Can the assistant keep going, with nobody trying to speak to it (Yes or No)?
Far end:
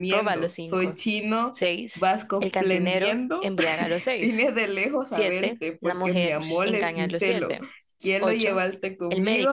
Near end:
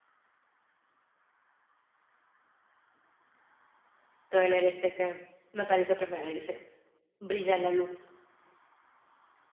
No